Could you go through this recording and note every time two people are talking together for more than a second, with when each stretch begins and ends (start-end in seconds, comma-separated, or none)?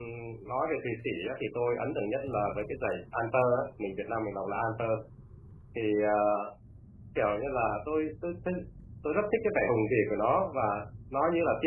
none